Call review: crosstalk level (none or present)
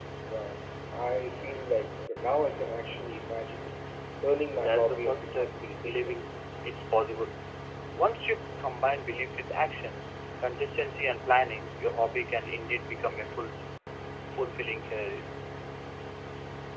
present